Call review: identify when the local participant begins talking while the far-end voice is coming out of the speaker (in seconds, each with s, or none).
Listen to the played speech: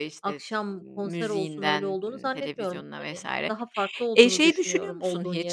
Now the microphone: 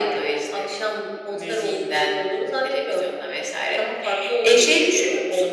none